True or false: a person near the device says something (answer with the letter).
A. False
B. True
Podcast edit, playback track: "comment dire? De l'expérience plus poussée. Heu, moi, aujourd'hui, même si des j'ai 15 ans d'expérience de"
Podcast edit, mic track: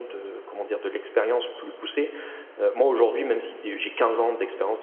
A